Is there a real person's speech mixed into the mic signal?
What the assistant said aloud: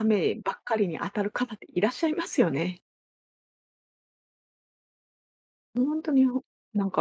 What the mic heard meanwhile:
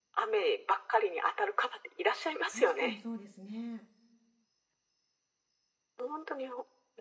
Yes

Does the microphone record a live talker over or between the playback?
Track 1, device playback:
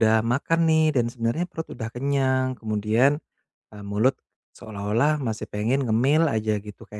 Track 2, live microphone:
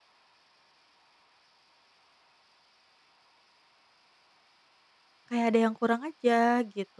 Yes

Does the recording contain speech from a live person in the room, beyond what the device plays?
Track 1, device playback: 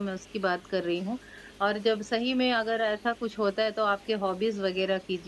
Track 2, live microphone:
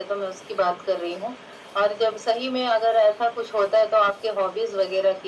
No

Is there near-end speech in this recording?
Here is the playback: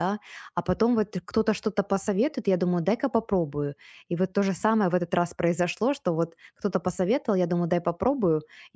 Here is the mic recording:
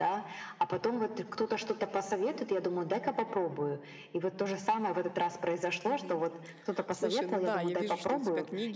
Yes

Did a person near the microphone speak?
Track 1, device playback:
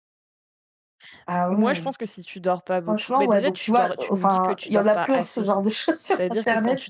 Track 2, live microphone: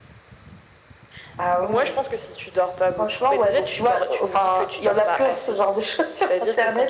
No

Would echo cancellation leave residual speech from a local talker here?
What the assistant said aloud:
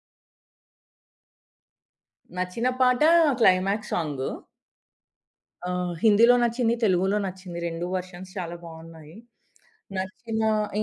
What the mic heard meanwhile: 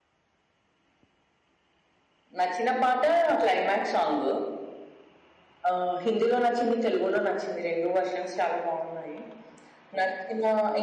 No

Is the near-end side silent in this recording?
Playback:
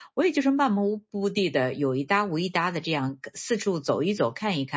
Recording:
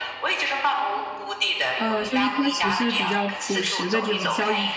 No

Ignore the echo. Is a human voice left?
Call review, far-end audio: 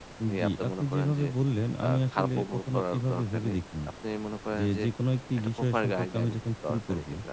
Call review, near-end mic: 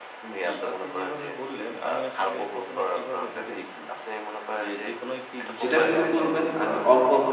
Yes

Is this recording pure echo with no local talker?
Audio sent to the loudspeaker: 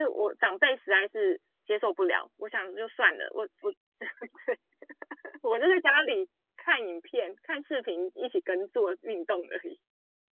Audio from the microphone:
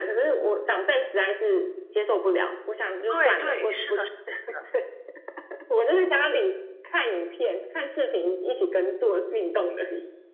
No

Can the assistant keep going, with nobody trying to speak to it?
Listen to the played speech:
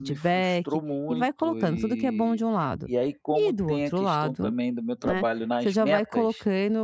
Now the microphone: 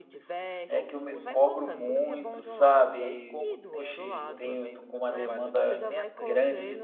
No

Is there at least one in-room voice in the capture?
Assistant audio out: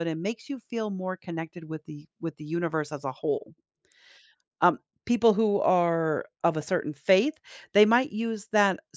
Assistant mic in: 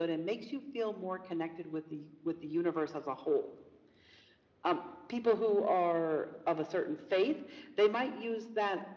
No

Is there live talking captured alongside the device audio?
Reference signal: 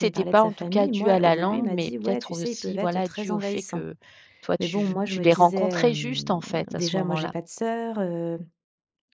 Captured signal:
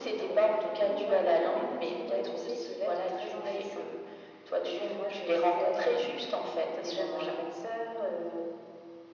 No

